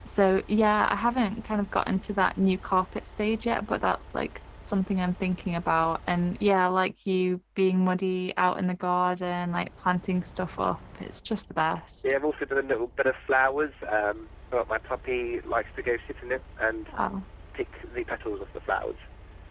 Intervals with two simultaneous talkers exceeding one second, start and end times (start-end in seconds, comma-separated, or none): none